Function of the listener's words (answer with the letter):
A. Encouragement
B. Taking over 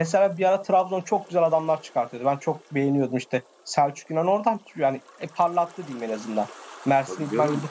A